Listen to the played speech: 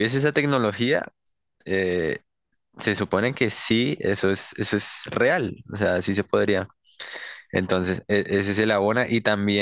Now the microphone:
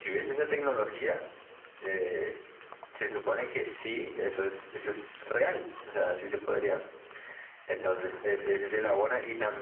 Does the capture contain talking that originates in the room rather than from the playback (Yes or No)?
No